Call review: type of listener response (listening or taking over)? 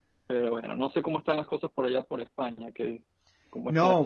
taking over